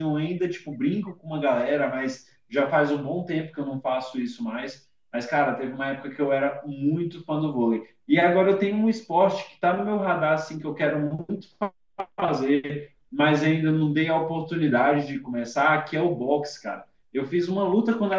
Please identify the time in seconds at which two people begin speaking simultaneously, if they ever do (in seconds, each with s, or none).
none